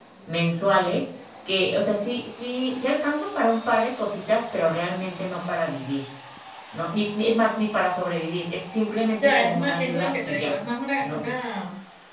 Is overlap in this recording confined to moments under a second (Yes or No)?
No